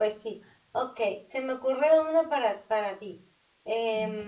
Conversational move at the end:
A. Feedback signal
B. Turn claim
A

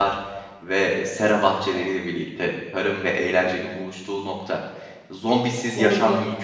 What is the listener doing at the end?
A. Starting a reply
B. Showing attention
B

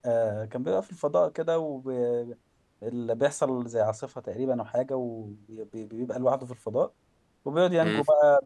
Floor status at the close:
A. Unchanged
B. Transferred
A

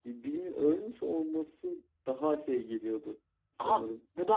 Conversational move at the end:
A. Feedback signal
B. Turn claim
B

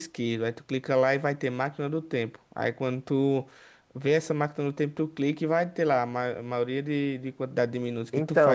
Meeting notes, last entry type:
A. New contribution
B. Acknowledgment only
A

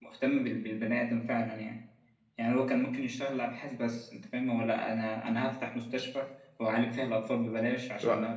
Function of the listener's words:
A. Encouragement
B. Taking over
A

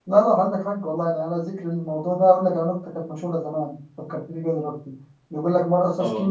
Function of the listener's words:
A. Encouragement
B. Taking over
A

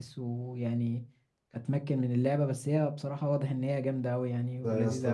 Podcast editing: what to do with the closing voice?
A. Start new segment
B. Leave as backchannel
A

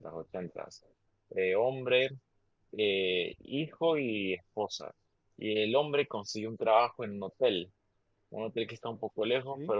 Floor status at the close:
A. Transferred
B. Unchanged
B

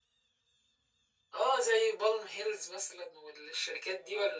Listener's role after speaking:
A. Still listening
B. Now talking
B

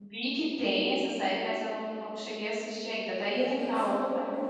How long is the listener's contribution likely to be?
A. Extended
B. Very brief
A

